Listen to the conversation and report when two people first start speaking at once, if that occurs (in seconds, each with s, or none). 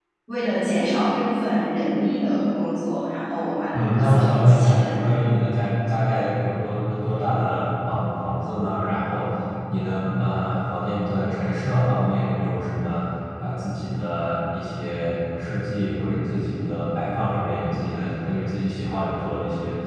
3.7 s